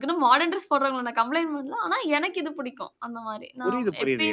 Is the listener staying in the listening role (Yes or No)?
No